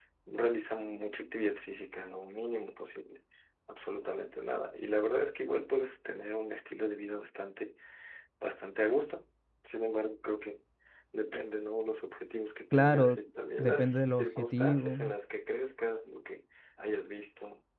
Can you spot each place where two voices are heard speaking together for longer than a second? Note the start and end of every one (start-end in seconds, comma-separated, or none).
13.6-15.0